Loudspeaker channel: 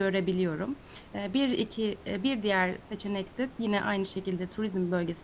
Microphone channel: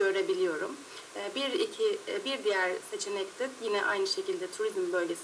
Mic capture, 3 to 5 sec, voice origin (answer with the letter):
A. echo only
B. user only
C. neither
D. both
A